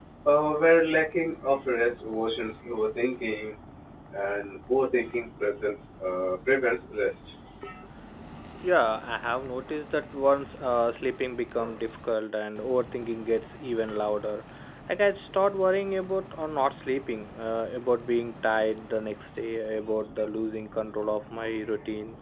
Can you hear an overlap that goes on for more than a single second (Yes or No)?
No